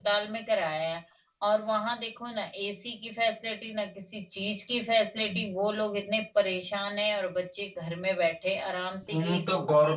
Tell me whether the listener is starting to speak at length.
Yes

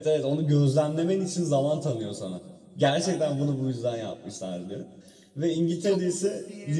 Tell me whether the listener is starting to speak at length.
No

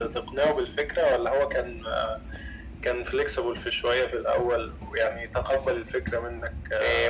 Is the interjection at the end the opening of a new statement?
Yes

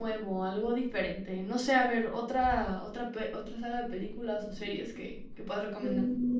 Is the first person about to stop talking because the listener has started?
Yes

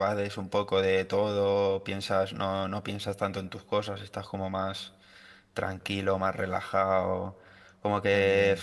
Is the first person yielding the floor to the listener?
No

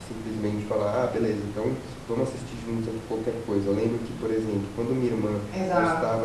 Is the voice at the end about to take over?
No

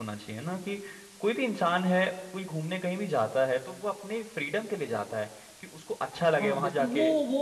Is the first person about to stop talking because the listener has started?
Yes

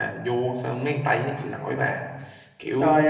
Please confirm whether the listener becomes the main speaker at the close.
Yes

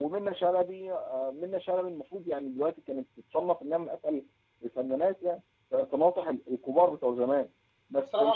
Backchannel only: No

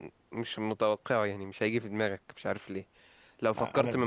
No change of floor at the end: Yes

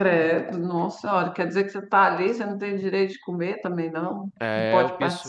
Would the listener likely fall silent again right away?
No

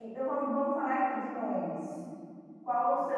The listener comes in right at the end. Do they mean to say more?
No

